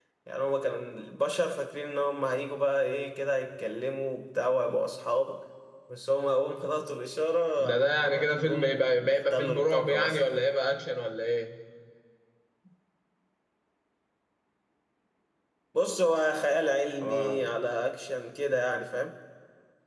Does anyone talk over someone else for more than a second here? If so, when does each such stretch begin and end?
7.6-10.2

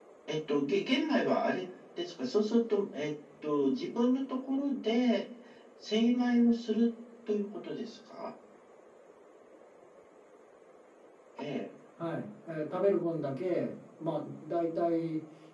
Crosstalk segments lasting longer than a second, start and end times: none

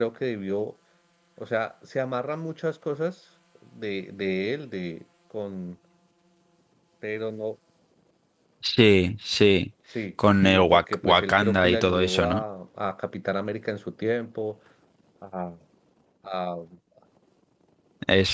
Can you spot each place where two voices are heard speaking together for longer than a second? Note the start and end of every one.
10.4-12.4

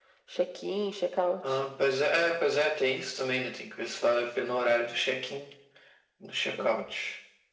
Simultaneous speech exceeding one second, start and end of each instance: none

